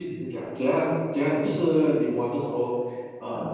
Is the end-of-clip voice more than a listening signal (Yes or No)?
No